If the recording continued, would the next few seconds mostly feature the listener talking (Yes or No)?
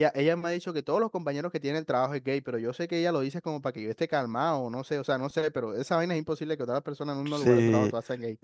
Yes